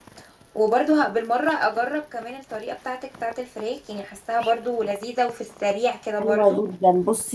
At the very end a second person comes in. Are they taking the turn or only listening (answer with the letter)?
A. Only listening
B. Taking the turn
B